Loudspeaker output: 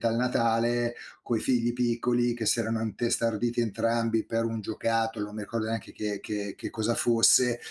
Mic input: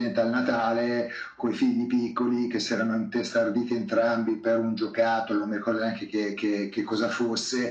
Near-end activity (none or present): none